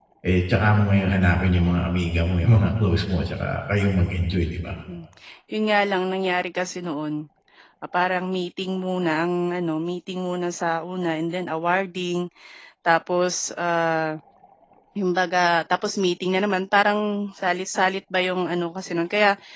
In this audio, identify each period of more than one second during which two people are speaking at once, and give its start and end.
none

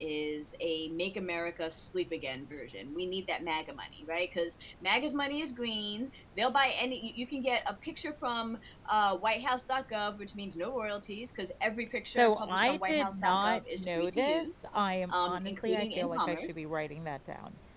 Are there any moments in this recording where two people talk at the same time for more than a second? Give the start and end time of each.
12.2-14.4, 15.1-16.5

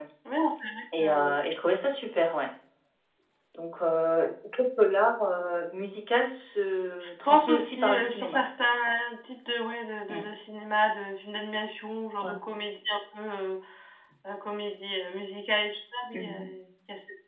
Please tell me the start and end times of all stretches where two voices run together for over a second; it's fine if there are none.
7.0-8.4

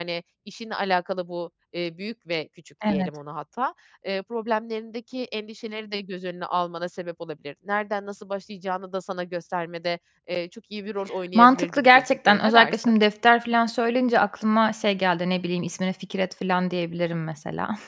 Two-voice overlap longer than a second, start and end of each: 11.4-12.8

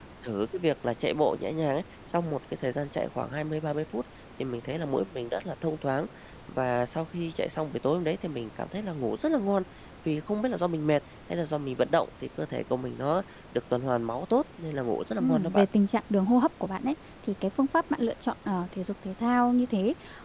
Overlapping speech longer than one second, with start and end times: none

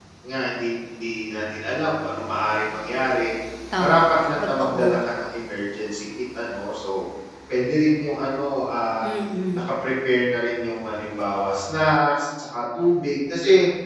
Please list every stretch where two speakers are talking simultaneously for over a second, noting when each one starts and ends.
3.8-5.0

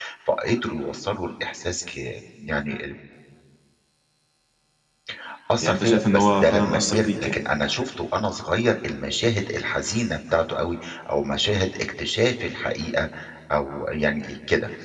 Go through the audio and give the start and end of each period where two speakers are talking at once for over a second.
5.6-7.4

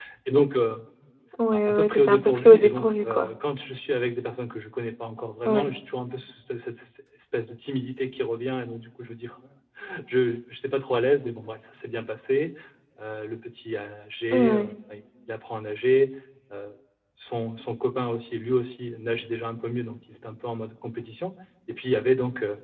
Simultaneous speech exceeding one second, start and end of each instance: 1.5-3.3

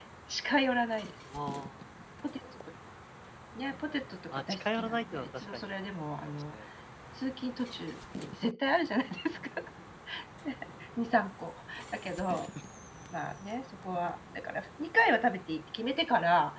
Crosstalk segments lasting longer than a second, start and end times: 4.3-5.7

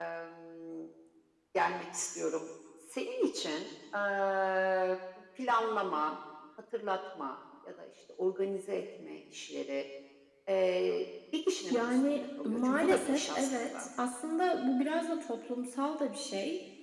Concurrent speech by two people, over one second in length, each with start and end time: 11.7-13.8

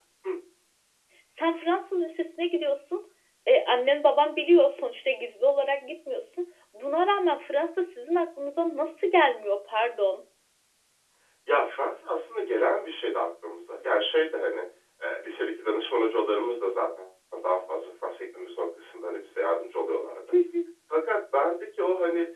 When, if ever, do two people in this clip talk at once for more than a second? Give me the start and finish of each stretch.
none

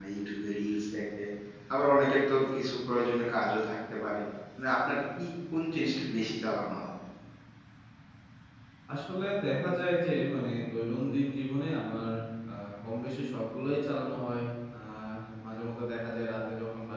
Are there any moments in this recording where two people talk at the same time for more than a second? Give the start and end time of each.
none

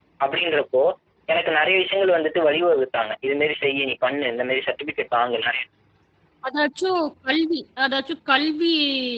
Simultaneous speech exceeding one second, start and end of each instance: none

